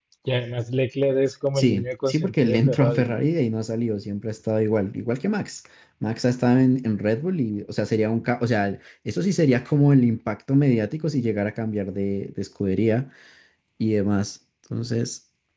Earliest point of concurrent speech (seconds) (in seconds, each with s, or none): 1.6 s